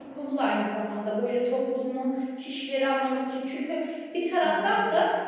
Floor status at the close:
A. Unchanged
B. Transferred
A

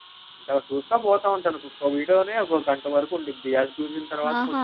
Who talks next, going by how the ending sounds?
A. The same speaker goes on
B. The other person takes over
B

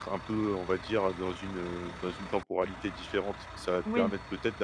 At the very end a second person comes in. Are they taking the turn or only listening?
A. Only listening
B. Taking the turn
A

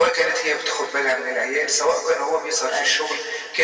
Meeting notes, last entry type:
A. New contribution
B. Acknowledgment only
B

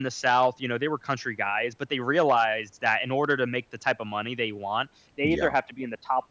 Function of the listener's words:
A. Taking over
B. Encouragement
B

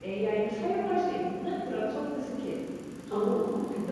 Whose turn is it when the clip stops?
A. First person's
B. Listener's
A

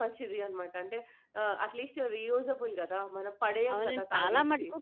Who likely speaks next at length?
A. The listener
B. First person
A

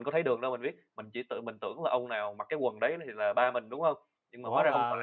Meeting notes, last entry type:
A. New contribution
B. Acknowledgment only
A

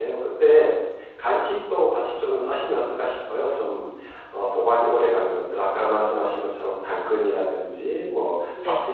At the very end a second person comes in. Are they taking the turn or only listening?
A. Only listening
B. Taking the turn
A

